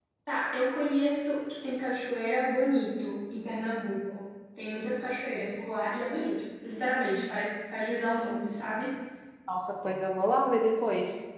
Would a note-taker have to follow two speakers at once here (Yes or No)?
No